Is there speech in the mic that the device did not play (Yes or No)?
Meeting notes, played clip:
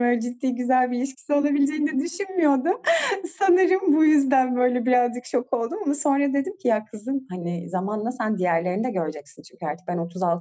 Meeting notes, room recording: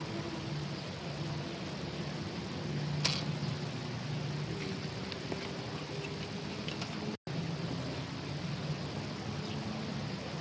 No